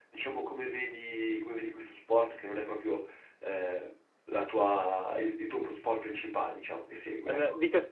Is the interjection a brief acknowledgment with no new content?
No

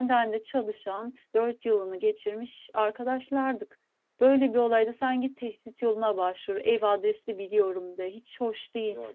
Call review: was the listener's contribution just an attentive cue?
No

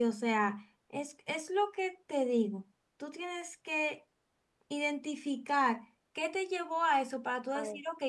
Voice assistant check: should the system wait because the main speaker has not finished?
Yes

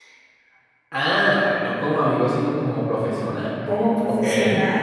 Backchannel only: No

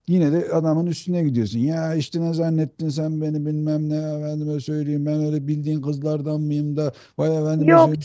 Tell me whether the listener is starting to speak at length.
Yes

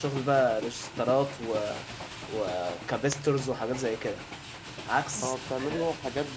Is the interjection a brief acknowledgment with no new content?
No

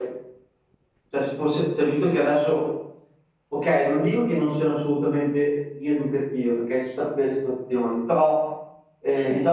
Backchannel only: Yes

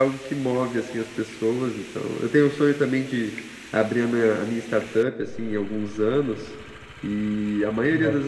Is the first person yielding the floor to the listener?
No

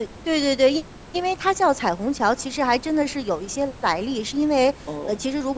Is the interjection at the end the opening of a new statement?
No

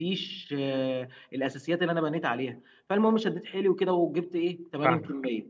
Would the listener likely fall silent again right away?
Yes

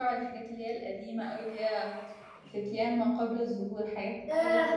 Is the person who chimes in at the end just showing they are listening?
No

